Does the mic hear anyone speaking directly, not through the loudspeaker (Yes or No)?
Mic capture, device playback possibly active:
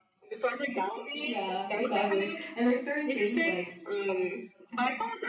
Yes